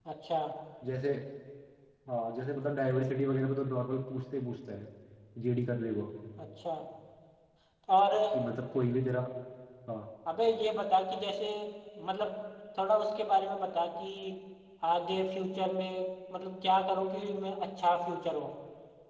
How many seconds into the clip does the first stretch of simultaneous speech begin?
none

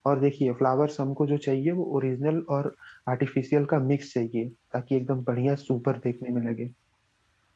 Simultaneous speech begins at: none

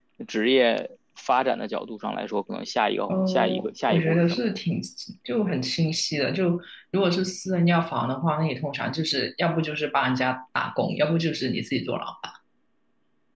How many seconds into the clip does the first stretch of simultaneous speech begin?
3.1 s

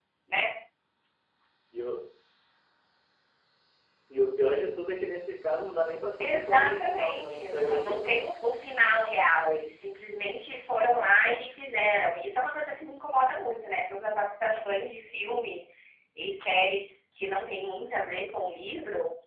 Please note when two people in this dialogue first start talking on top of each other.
6.2 s

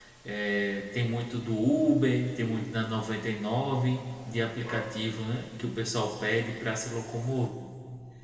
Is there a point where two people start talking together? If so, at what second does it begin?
none

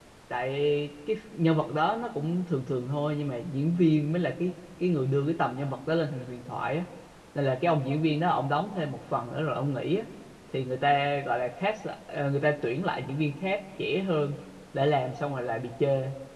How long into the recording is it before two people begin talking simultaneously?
none

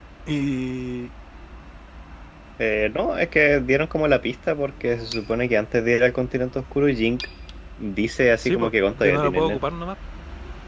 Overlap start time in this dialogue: 8.4 s

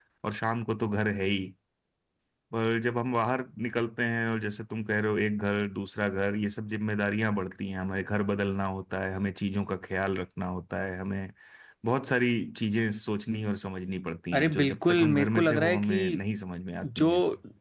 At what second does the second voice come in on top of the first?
14.3 s

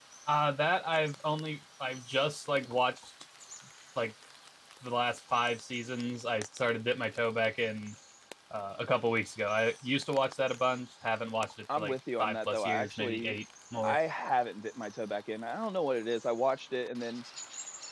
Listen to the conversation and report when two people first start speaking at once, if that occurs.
11.7 s

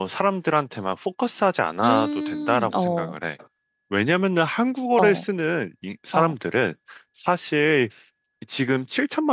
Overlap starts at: 1.8 s

